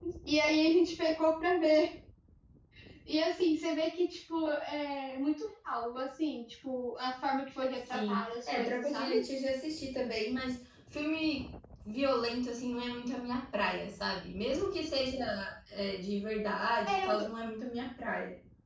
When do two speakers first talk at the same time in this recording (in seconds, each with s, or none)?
7.9 s